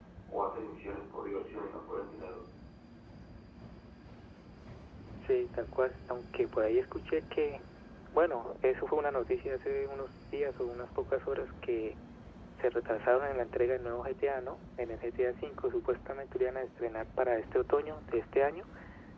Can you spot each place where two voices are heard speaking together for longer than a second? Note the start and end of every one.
none

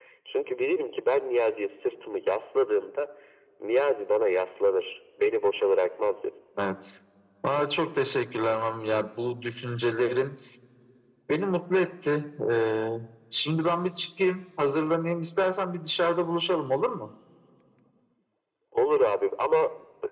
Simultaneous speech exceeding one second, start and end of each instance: none

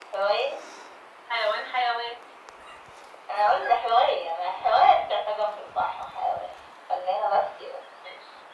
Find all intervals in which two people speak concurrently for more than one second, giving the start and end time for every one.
none

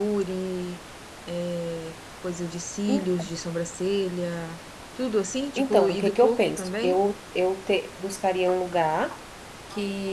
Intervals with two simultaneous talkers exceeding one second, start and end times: 5.6-7.0

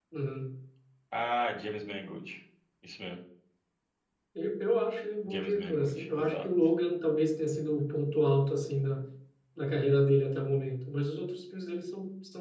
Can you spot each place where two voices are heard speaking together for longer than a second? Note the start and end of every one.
5.2-6.5

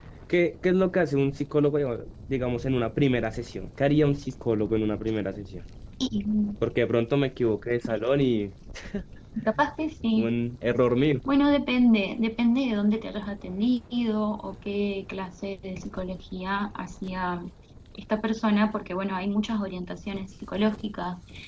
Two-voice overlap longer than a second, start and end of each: none

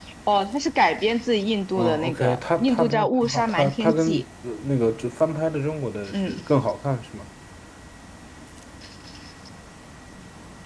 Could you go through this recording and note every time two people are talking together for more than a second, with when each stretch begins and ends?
1.8-4.2

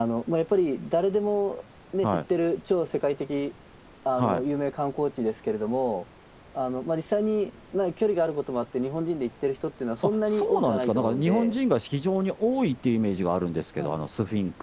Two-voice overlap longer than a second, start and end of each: 10.3-11.5

